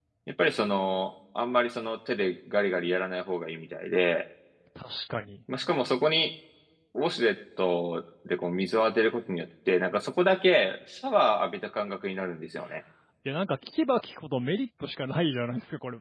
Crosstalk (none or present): none